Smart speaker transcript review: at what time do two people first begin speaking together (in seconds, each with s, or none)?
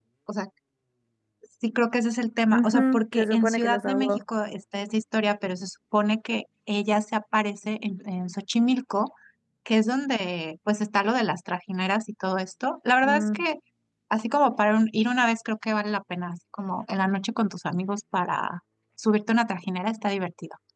2.5 s